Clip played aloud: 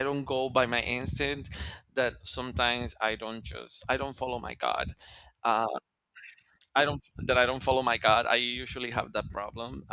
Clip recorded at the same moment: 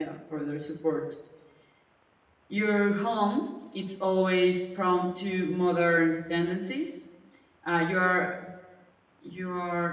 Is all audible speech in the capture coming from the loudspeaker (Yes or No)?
No